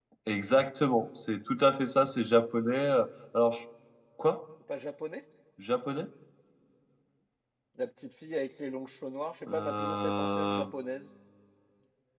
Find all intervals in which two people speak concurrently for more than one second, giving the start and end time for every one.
9.5-10.7

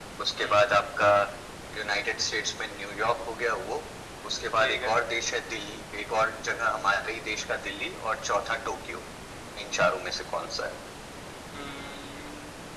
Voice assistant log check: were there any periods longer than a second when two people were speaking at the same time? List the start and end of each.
none

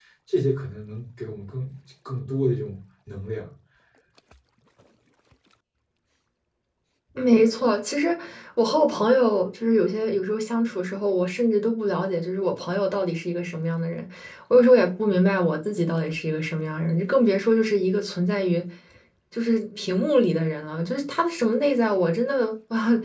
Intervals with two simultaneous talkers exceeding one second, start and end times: none

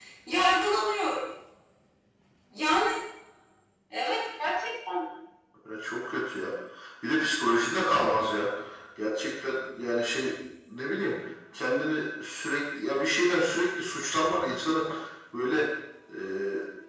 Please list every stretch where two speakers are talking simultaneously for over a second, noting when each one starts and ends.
none

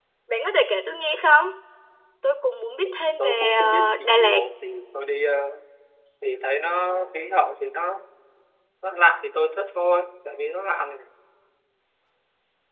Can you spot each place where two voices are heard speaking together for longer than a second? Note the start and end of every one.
2.8-4.4

